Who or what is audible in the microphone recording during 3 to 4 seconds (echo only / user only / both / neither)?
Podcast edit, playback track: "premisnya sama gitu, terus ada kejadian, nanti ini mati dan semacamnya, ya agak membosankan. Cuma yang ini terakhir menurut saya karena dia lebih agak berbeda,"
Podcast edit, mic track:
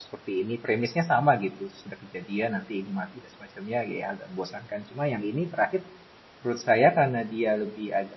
echo only